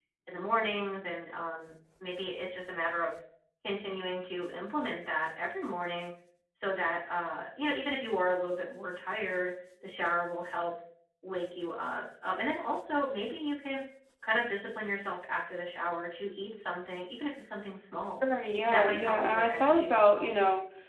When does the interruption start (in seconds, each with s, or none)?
18.7 s